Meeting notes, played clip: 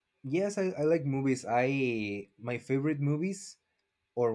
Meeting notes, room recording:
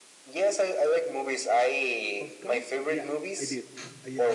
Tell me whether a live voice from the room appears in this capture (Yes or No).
Yes